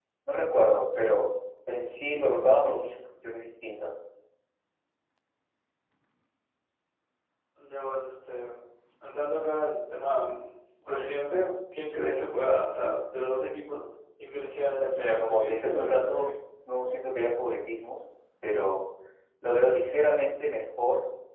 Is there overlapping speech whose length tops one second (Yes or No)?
Yes